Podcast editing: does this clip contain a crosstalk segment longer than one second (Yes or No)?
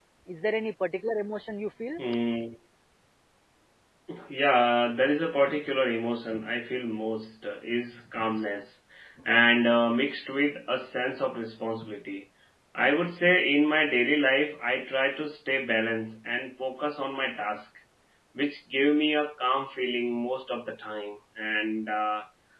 No